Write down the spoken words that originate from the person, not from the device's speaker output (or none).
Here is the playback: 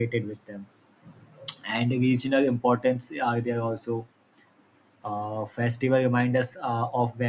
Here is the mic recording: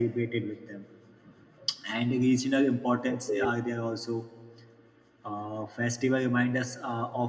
Okay.